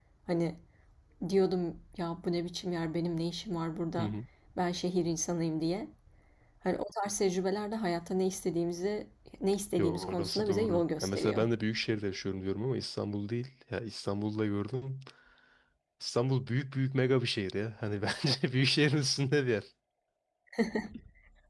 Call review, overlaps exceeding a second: present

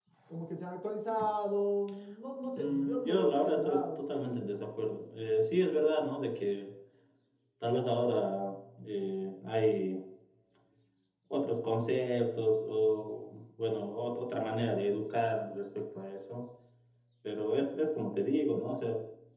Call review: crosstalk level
present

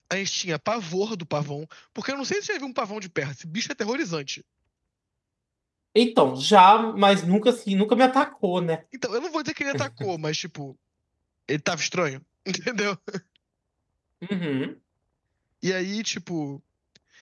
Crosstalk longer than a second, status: none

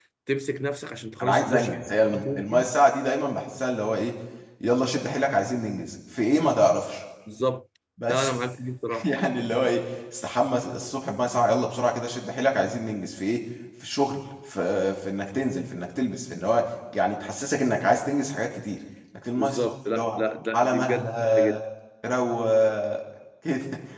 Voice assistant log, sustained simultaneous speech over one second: present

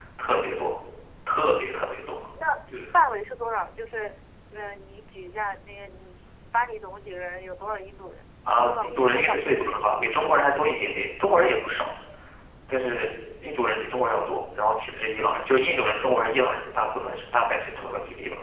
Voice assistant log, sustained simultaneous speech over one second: present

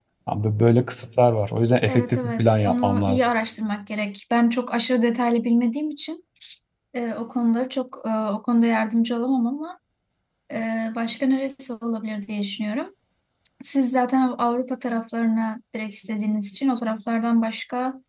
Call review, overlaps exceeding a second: present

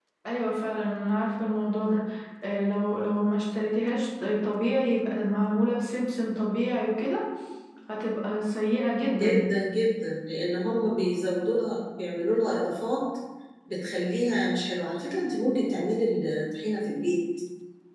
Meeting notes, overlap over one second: none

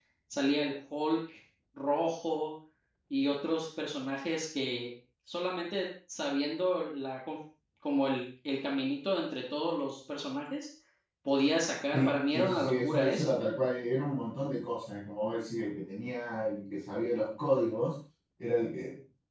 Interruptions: present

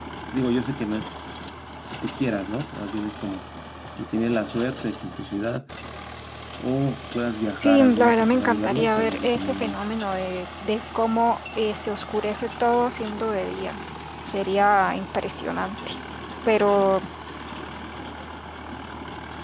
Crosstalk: present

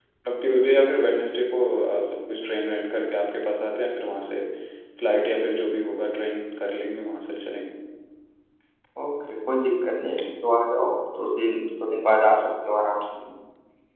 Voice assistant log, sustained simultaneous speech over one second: none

